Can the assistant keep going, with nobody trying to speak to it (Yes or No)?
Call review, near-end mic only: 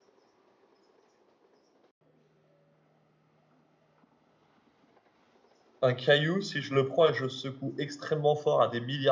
No